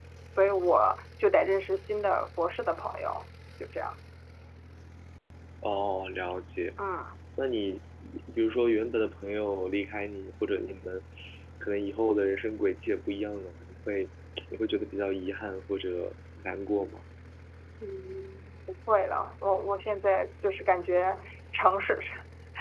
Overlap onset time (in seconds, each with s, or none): none